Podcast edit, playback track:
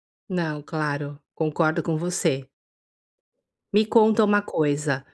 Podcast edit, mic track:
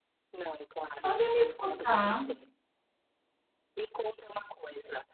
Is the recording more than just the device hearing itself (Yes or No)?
Yes